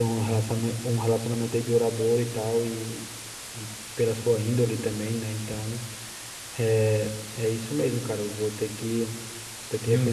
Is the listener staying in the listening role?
No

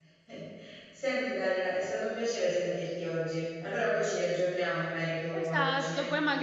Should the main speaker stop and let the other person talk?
Yes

